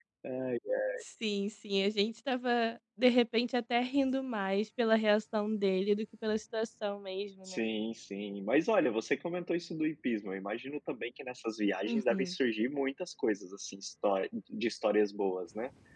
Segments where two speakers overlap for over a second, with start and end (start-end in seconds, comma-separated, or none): none